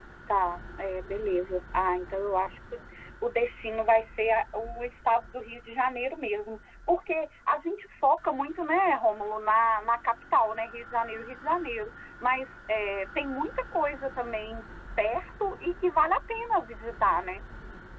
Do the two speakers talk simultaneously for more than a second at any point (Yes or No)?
No